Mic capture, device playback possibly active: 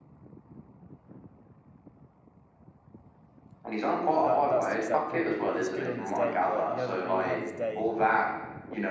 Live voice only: That that's the exact problem. He's good on his day, but he hasn't really had his day

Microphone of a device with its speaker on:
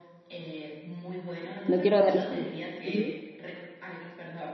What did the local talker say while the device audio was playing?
No quiero darles con... Ujú.

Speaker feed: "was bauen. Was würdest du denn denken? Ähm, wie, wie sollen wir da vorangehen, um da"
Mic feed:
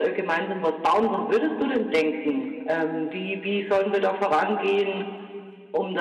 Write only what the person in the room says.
none

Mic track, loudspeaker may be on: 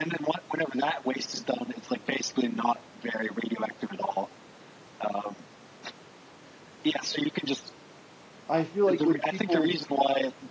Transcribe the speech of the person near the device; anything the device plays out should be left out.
I feel like when people

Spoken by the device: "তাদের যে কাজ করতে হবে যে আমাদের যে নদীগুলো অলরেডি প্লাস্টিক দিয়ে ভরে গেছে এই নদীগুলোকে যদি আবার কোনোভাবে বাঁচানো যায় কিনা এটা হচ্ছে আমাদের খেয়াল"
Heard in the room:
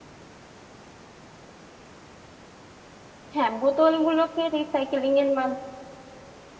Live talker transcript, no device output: হ্যাঁ বোতলগুলোকে রিসাইকেলিং এর মাধ্যমে

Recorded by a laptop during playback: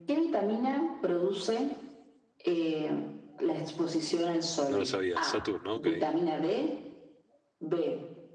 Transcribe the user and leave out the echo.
No lo sabía. Saturno, ok.

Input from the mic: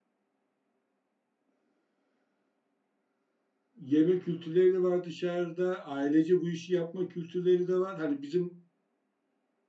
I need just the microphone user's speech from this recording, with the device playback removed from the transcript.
yeme kültürleri de var dışarıda. Ailece bu işi yapma kültürleri de var. Hani bizim

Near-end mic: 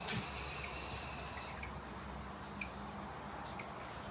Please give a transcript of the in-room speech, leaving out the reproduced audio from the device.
none

